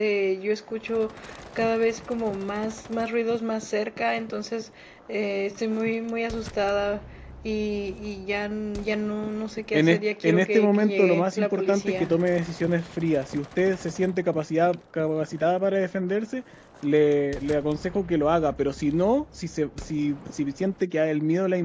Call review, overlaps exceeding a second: present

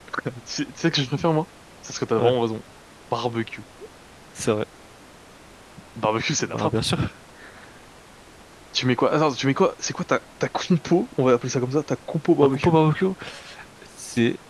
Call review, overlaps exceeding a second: none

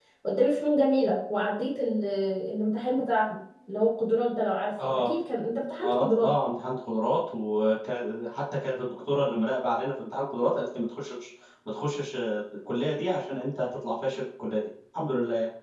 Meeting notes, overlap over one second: none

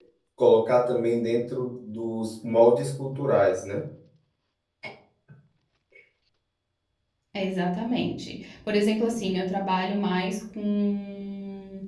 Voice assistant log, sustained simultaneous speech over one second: none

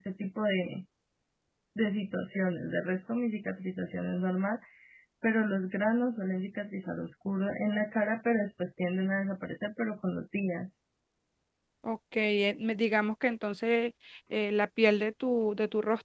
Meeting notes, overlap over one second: none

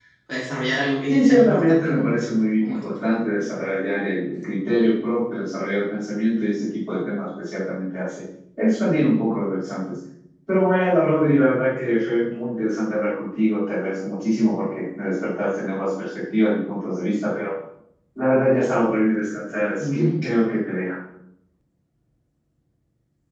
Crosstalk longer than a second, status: present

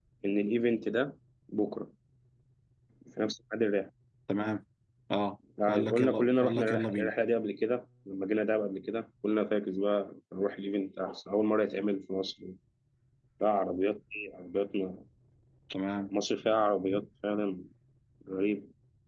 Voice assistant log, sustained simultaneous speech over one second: present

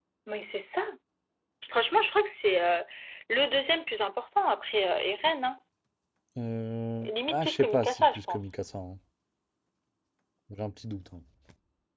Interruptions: present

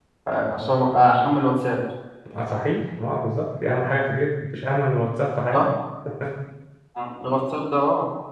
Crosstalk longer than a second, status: none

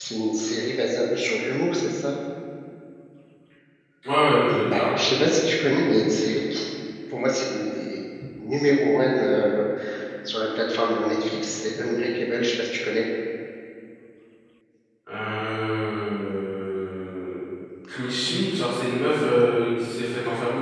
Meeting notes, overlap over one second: none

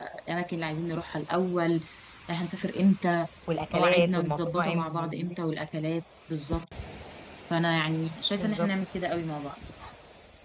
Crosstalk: present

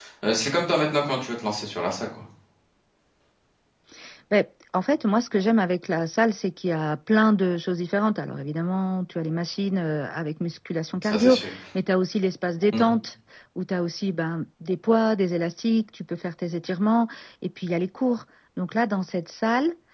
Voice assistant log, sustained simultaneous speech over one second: none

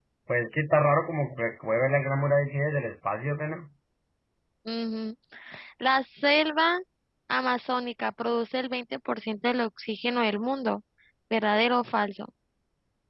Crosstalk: none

